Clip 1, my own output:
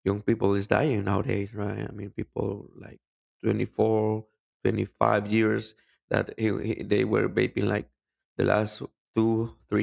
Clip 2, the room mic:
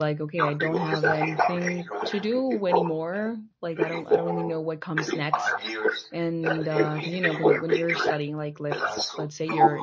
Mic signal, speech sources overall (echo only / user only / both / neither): both